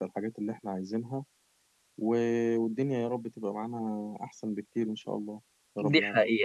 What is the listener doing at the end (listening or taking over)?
taking over